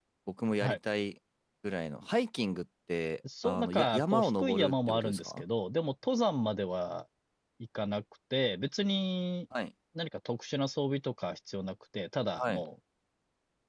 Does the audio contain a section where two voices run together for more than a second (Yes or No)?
Yes